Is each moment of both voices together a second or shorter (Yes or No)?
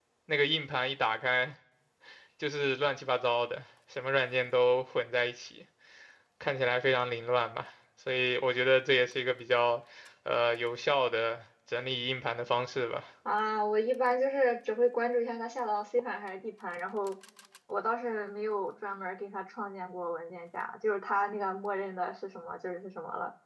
Yes